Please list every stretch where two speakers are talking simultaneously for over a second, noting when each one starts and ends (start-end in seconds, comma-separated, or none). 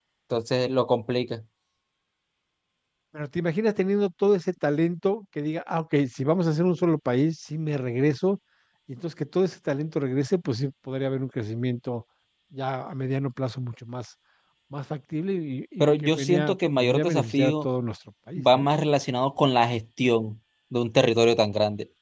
15.8-17.6